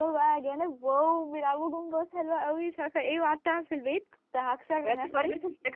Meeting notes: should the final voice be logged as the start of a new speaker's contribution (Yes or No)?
Yes